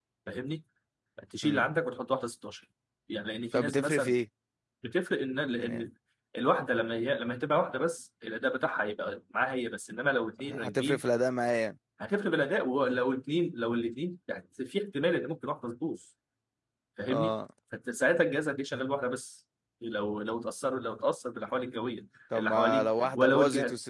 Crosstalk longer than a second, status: present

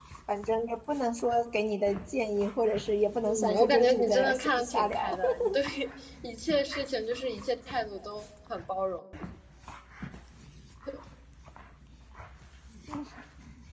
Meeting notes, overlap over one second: present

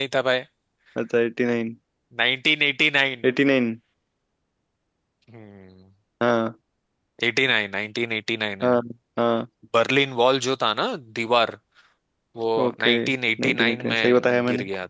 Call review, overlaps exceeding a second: present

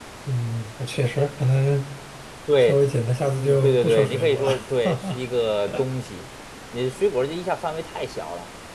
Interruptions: present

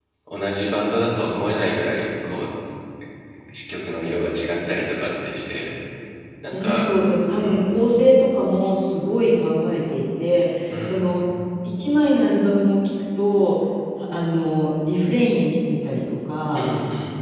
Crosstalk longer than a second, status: none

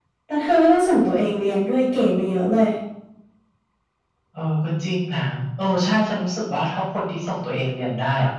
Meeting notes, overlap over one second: none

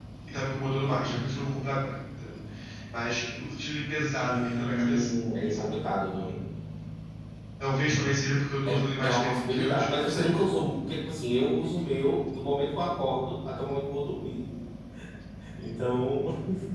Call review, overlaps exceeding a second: present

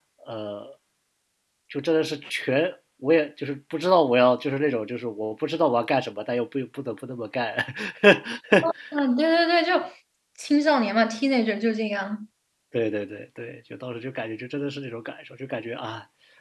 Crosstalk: none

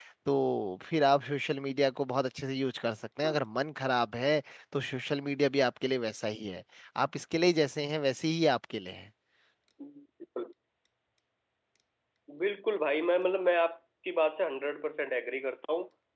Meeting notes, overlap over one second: none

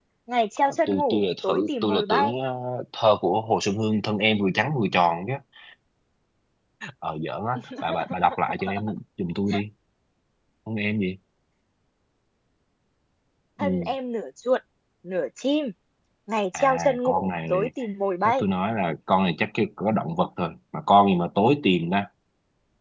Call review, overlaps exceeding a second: present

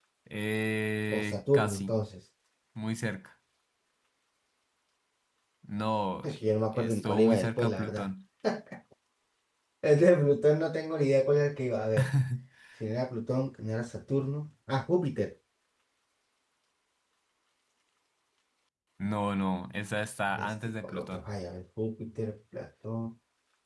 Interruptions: present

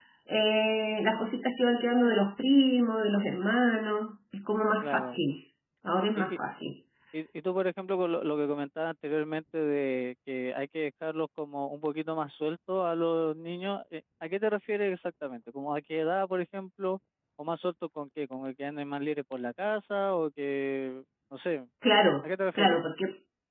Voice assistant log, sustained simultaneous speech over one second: none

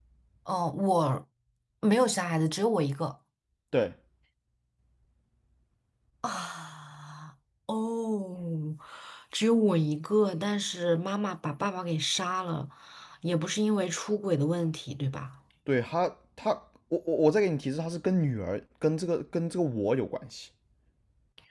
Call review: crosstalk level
none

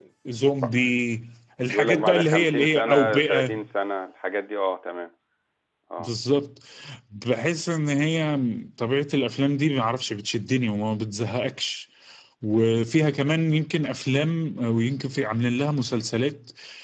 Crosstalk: present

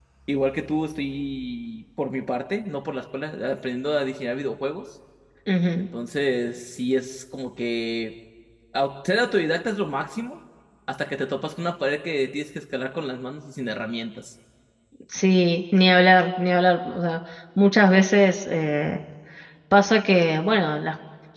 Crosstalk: none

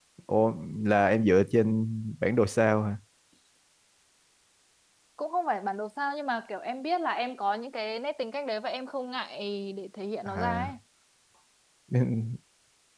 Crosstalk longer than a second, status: none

